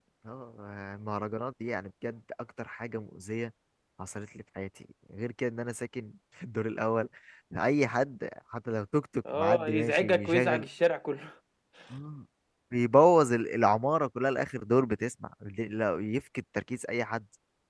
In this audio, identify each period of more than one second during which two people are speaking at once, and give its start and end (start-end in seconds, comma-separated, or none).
9.3-10.7